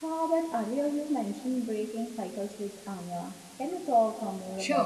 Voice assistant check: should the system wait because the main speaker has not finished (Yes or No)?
No